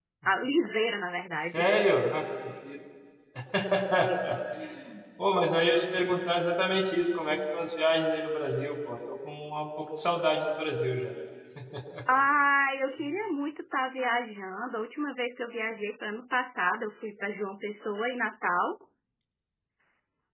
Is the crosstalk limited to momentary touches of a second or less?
Yes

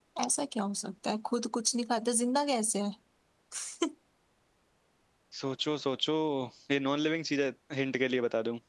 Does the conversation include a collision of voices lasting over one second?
No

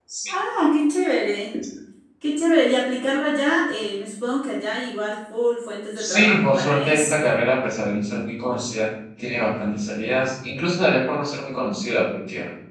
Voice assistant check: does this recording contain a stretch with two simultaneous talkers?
Yes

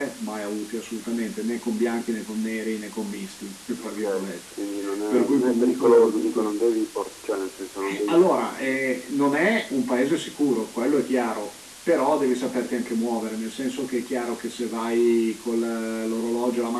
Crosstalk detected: Yes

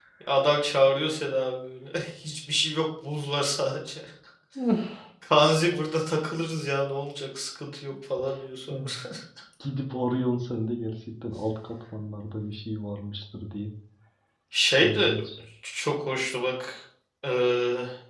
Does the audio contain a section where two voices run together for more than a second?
No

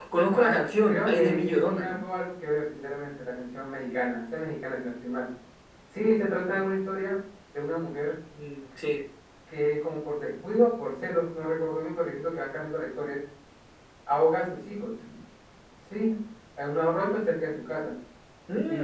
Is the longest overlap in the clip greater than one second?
Yes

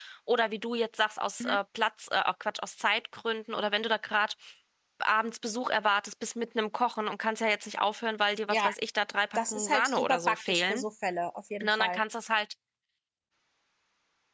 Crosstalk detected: Yes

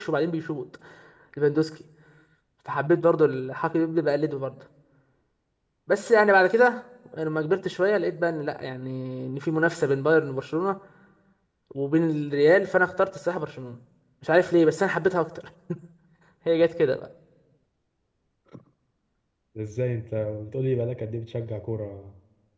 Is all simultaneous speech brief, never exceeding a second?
Yes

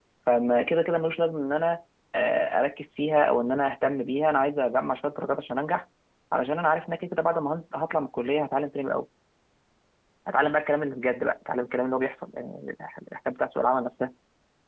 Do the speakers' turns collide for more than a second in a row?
No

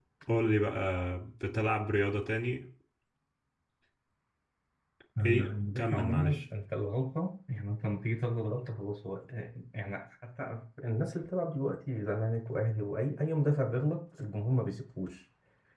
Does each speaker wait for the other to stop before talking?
No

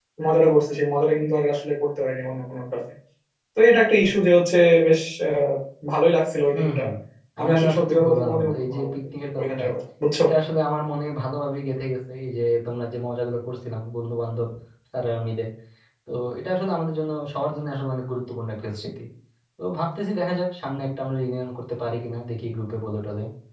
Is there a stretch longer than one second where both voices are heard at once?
Yes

